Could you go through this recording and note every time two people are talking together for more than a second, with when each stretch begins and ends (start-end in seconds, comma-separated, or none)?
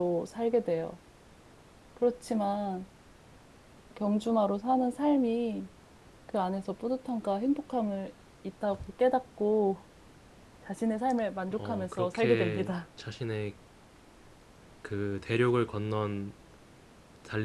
11.5-12.7